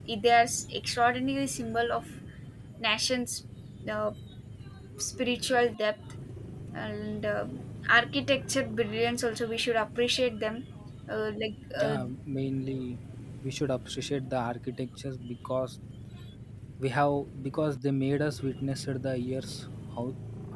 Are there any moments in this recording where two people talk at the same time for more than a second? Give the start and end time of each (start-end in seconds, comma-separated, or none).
none